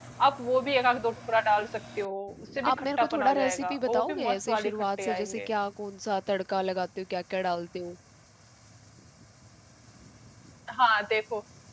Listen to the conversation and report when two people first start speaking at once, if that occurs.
2.6 s

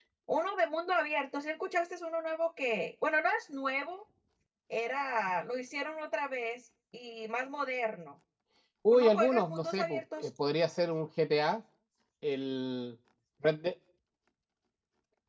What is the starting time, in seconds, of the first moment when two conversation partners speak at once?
8.9 s

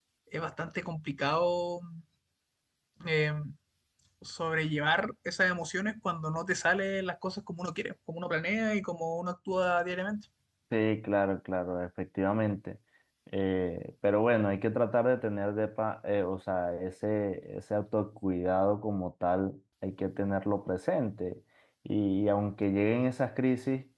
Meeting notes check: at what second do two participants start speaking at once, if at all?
none

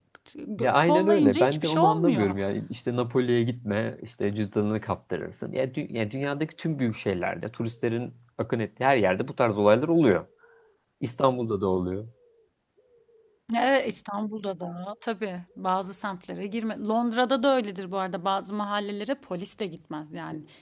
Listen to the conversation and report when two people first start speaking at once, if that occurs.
0.6 s

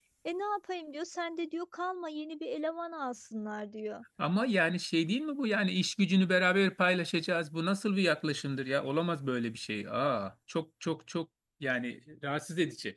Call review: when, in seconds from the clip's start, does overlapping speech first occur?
none

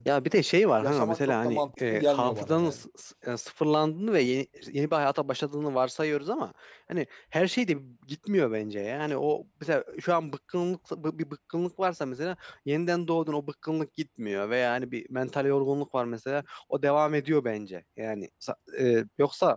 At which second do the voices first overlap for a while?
0.8 s

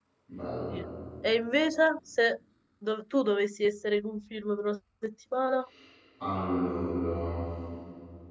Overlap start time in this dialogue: none

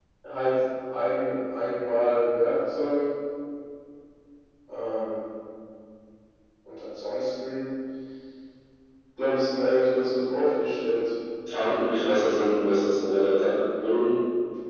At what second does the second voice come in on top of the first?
none

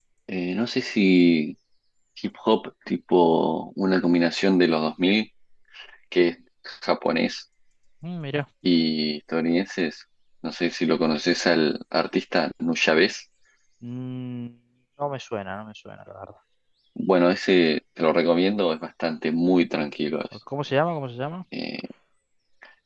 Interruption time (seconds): none

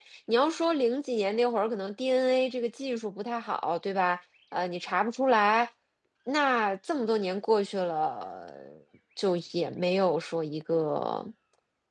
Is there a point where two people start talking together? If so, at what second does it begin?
none

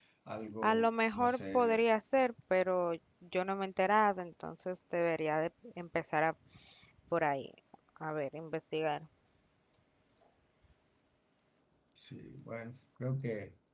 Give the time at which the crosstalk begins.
0.6 s

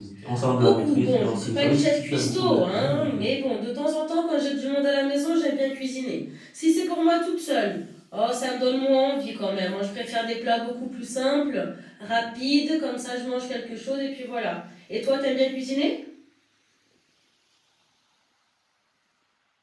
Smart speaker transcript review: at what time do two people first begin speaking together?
0.5 s

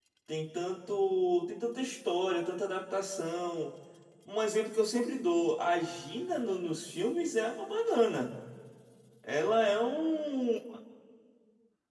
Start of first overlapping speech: none

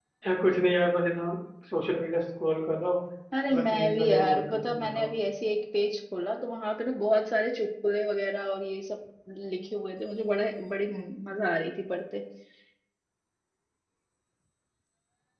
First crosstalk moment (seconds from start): 3.5 s

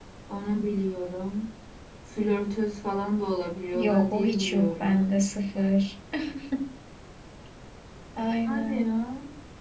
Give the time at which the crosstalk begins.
3.7 s

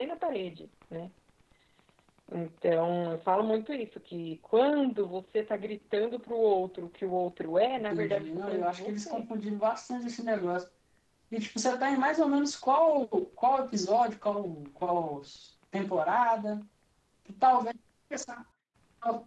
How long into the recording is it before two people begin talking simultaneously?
7.9 s

